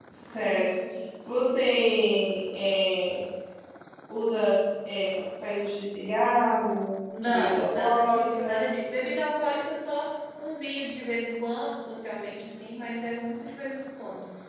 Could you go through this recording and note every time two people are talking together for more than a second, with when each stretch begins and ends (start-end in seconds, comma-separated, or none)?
7.2-8.6